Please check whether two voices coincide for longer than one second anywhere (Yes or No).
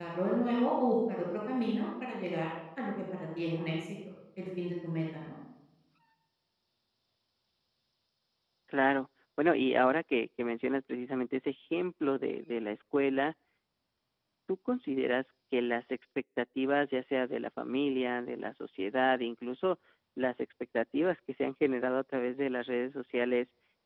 No